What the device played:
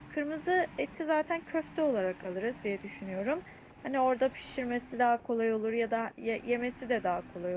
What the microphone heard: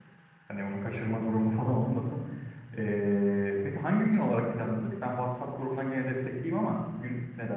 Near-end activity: present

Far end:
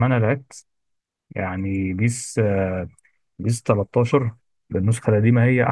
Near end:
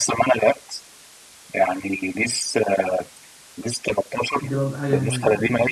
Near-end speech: present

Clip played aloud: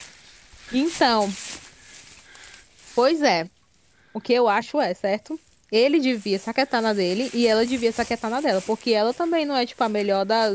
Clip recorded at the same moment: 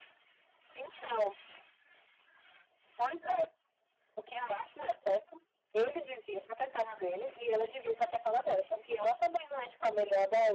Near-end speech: none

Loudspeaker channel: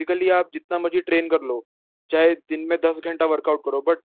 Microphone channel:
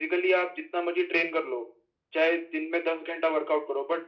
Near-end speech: none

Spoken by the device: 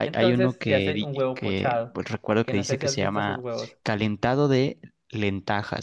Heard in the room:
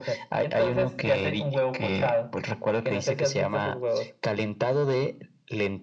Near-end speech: none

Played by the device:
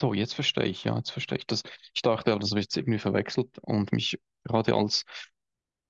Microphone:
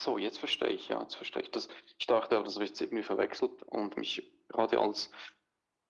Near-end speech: none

